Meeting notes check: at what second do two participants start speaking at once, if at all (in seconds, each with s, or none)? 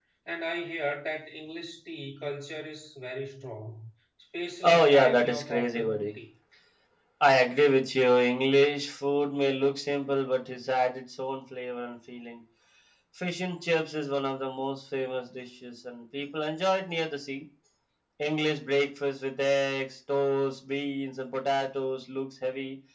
4.6 s